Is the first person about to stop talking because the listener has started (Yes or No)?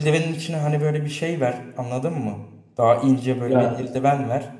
No